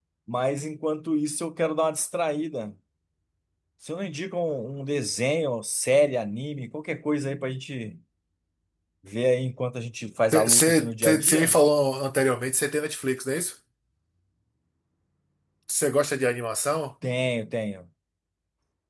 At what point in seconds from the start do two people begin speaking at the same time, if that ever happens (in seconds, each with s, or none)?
10.3 s